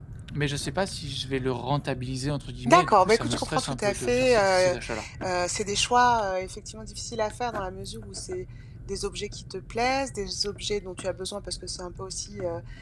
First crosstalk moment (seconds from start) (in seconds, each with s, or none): 2.7 s